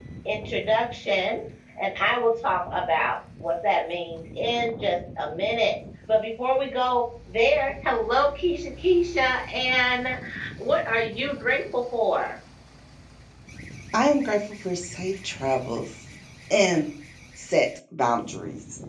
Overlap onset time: none

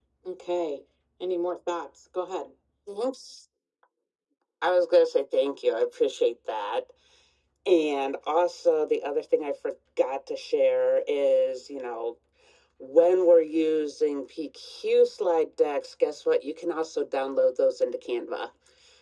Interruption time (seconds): none

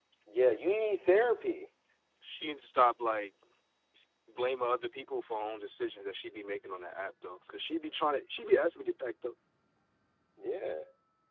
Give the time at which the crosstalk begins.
none

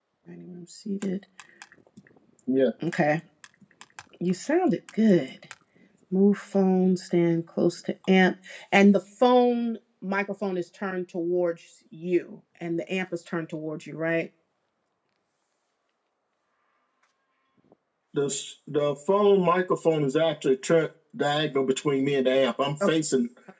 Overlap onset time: none

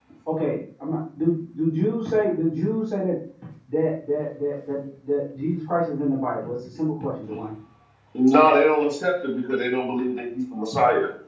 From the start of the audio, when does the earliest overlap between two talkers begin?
none

